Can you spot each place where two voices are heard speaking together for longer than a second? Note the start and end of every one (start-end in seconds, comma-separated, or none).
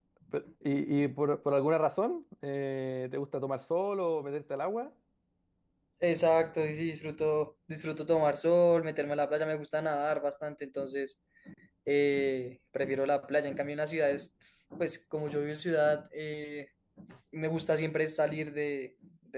none